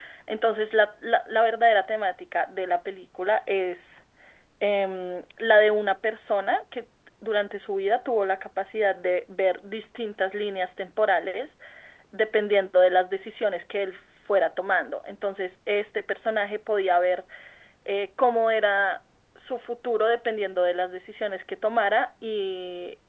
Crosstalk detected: No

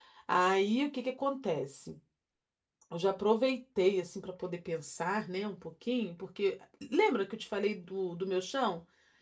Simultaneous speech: No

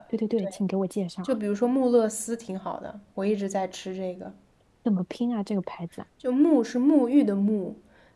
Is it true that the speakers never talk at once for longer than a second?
Yes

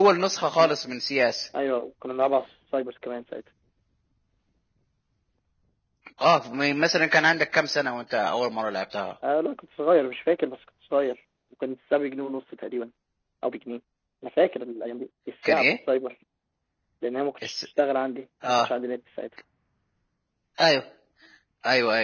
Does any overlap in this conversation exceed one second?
No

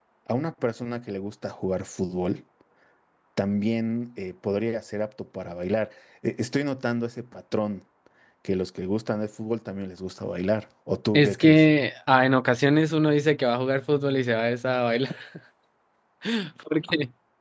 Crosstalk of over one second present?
No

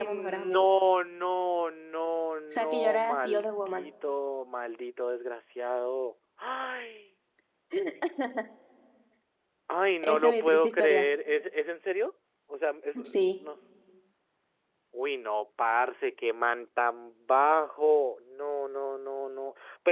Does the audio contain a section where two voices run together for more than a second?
Yes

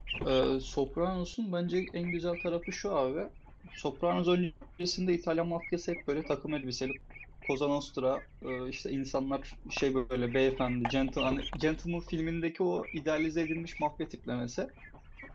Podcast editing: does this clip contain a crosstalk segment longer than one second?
No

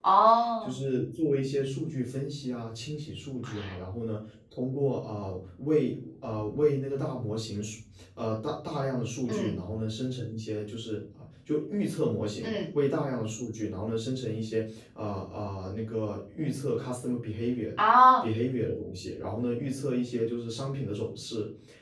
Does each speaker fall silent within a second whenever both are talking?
Yes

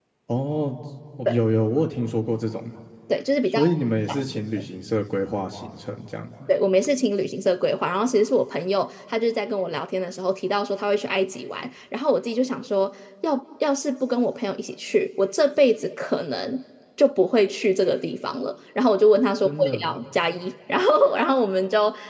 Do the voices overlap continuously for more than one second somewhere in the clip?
No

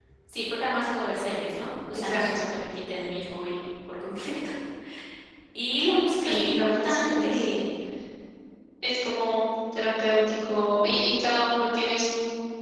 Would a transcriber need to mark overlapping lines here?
Yes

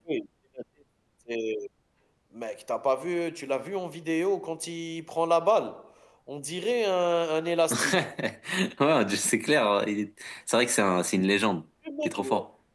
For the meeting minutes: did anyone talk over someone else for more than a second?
No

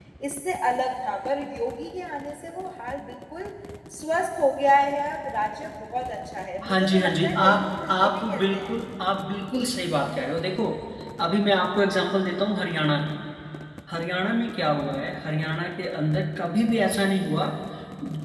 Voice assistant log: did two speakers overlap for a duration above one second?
Yes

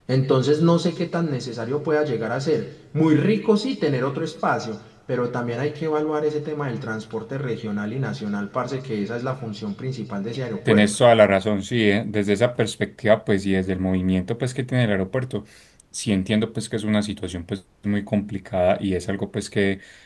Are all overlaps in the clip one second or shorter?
Yes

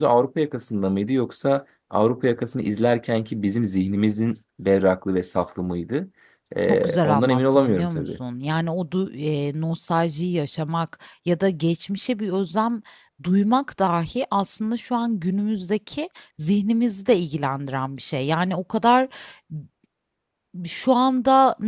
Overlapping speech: Yes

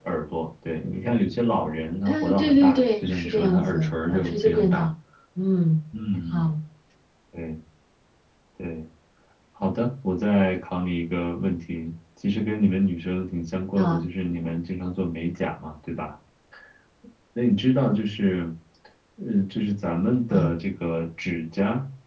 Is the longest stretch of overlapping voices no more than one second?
No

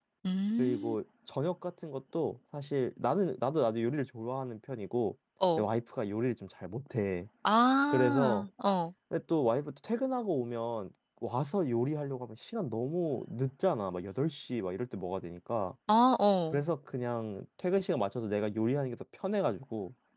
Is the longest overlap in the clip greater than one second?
No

